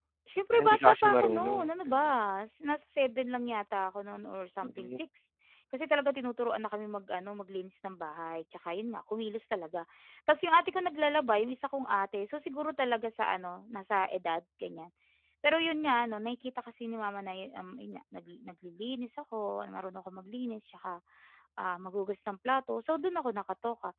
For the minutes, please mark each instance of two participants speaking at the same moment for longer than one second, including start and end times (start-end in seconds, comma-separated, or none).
0.5-2.1